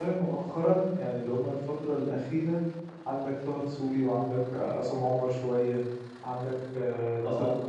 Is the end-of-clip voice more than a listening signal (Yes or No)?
No